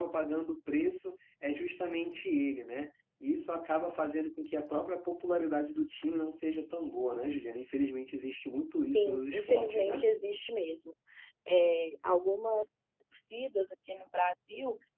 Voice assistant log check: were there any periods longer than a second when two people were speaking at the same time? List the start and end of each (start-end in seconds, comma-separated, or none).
8.8-10.0